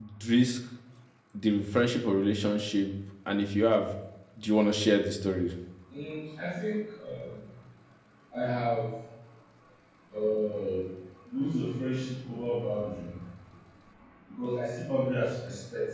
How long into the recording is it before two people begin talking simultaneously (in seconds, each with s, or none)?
none